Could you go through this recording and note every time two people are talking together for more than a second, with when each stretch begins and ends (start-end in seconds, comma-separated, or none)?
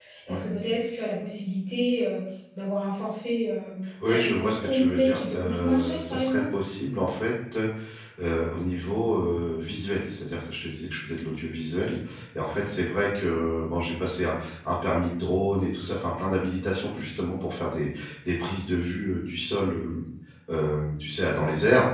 4.1-6.4